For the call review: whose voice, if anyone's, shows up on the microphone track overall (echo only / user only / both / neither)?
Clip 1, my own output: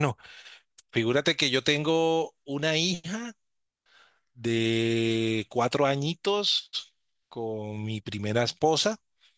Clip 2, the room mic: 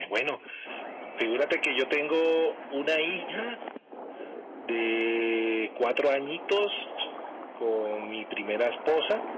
echo only